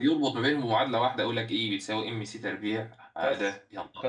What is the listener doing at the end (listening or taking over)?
taking over